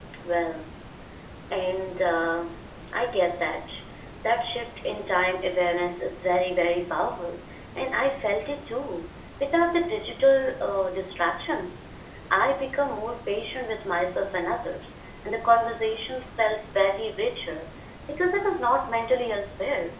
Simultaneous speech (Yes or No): No